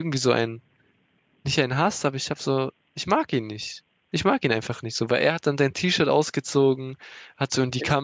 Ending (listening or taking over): listening